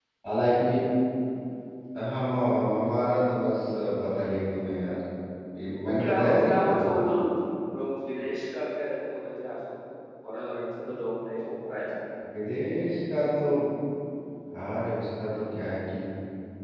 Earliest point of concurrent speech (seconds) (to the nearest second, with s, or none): 6 s